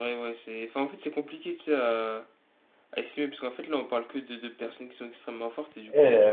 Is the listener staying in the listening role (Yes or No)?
No